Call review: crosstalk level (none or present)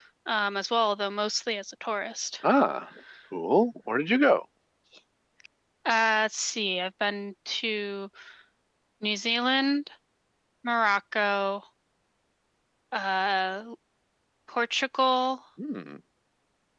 none